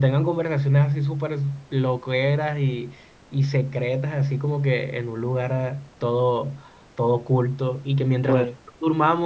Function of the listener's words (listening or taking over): listening